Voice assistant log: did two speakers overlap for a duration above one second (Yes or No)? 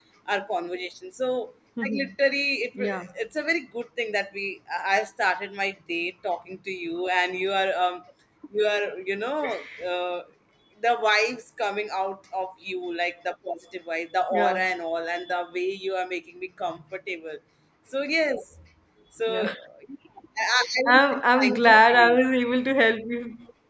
Yes